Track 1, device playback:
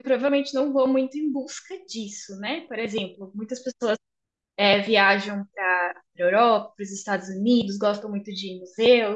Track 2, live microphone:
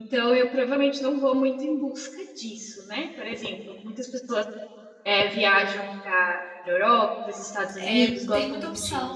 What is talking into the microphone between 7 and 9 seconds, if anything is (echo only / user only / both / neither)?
both